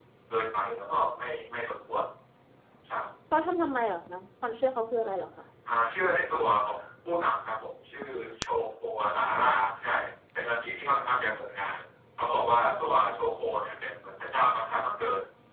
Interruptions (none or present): none